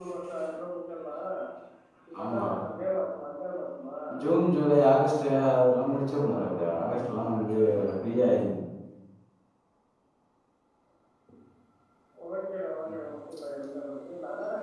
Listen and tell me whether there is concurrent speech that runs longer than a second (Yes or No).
Yes